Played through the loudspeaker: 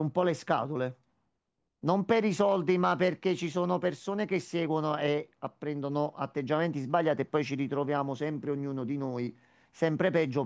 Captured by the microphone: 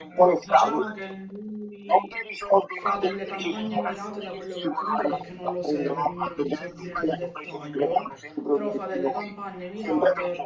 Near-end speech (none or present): present